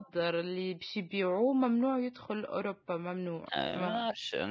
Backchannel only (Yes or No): No